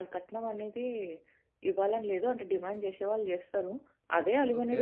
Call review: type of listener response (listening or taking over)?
listening